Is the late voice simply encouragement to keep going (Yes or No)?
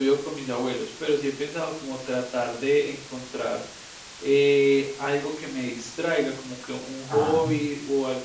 Yes